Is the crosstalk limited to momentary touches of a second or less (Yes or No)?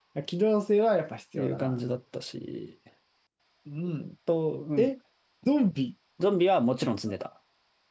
Yes